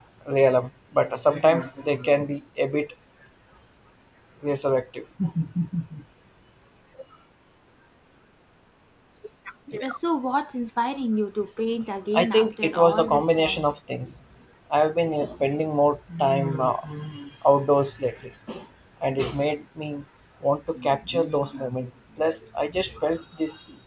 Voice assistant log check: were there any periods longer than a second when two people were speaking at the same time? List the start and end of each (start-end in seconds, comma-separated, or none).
12.1-13.7